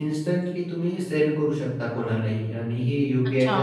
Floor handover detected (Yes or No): Yes